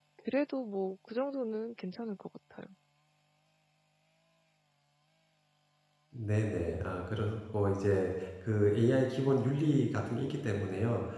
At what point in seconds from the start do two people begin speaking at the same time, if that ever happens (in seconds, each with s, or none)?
none